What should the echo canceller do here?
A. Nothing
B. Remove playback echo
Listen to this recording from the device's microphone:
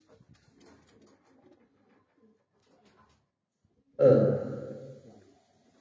A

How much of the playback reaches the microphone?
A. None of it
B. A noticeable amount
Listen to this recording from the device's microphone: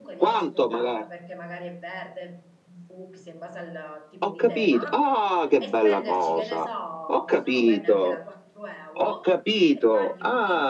B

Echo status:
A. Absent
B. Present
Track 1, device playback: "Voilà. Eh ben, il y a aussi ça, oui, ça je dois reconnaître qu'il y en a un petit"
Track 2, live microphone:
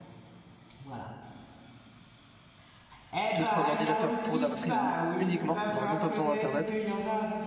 B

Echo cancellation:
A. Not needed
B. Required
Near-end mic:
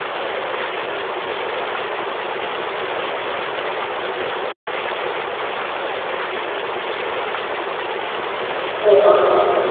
A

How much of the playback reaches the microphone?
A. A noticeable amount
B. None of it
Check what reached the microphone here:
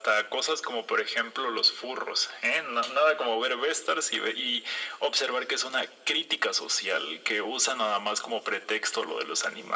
A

